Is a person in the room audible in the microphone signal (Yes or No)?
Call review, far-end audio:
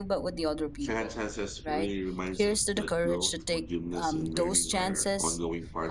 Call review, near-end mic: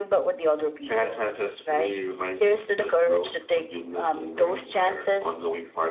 No